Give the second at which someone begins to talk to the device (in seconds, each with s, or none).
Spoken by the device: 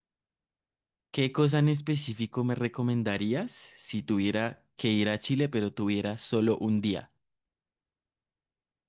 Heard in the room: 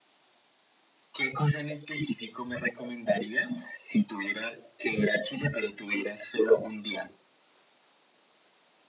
none